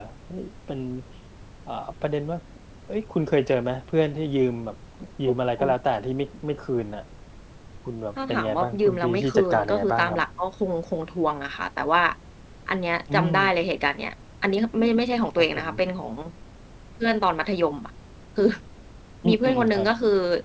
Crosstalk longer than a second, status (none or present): present